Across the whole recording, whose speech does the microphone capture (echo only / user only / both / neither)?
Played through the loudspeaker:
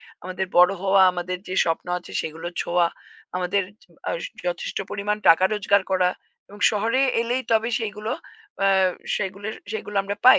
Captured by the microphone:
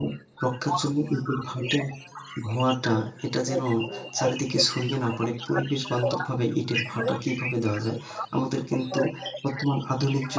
both